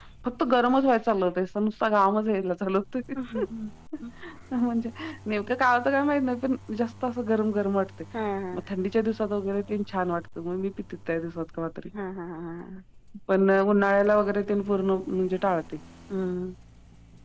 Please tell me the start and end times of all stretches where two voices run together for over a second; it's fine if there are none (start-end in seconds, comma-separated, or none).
none